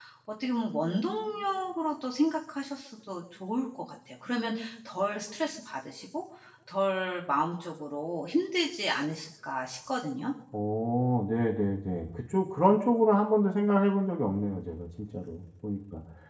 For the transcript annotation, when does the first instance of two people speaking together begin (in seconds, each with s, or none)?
none